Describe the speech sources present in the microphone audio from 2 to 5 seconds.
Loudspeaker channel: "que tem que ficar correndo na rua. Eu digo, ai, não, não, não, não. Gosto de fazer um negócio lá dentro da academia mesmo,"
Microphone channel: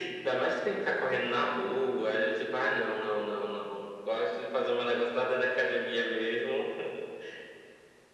echo only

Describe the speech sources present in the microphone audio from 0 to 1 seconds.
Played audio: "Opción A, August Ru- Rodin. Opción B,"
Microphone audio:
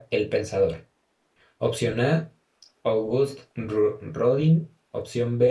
echo only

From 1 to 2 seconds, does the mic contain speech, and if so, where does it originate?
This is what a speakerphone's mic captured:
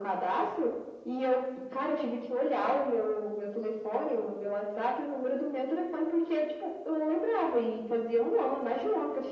echo only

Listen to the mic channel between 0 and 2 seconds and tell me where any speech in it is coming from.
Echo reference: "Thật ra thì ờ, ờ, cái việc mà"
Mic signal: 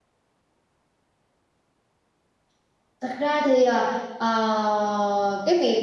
neither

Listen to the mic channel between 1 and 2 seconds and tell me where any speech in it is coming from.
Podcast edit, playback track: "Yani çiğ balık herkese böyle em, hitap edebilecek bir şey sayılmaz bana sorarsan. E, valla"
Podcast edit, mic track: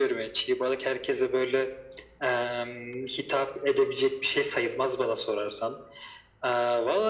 echo only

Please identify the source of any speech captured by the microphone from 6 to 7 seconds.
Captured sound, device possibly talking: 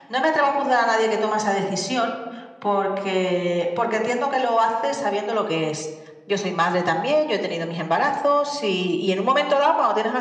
echo only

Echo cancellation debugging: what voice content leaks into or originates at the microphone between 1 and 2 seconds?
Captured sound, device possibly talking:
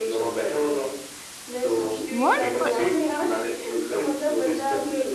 echo only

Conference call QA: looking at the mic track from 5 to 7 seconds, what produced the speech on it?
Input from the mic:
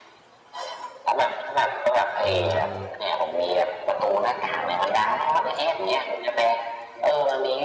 echo only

